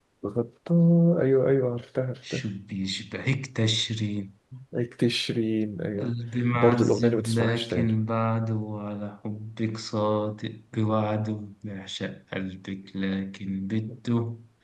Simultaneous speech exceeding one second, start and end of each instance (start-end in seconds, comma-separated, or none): 6.5-7.9